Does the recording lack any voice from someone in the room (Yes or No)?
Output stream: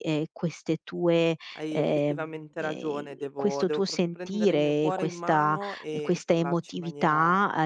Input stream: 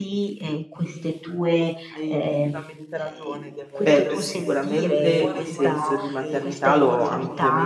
No